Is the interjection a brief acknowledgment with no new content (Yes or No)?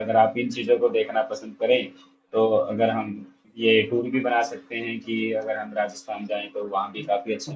No